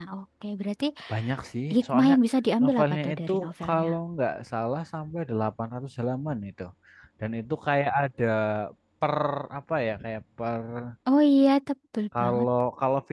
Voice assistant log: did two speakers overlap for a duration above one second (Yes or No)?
Yes